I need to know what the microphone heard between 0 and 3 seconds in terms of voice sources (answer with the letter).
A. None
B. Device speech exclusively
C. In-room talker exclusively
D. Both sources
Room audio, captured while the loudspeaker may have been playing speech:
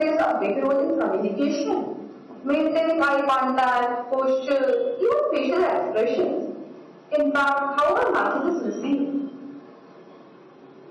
B